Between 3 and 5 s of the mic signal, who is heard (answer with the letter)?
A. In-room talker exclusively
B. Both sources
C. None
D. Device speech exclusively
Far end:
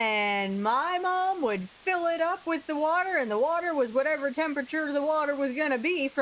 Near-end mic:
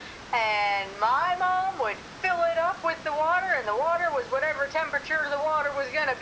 D